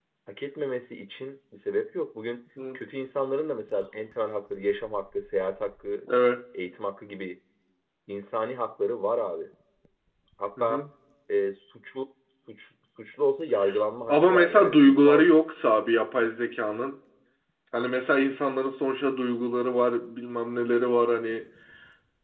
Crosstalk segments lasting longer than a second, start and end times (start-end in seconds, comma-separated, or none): 14.1-15.3